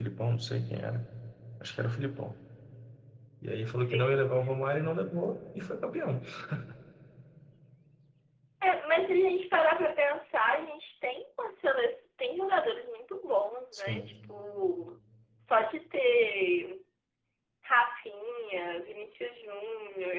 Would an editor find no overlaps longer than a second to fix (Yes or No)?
Yes